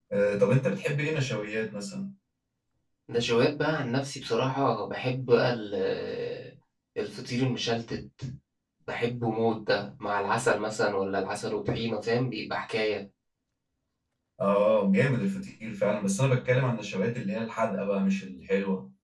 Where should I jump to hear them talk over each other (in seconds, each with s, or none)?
none